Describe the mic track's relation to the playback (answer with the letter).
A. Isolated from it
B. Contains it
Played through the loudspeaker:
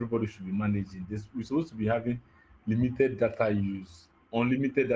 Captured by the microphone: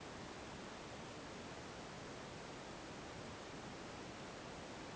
A